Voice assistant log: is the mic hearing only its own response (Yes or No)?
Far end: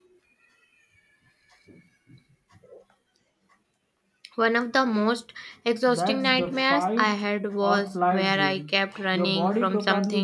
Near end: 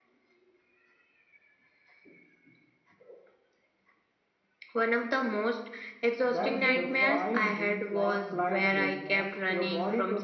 No